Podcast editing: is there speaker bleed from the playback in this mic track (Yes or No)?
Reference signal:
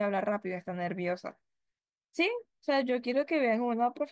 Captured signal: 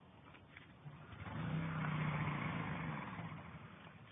No